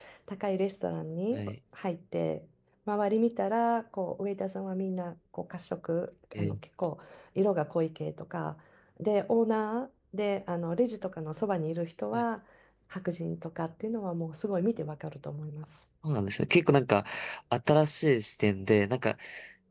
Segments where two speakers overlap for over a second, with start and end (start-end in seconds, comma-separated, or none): none